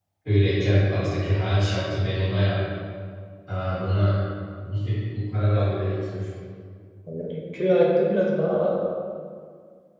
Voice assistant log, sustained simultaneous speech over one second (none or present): none